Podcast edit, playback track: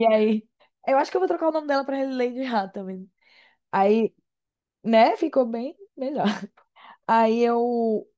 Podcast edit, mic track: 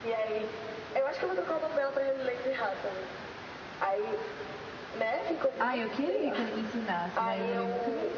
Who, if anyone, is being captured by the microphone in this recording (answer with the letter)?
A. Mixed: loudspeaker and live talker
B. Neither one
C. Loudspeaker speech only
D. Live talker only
A